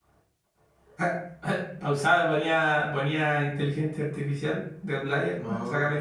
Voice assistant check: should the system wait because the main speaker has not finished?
No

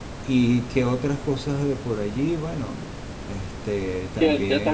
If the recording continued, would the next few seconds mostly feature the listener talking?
Yes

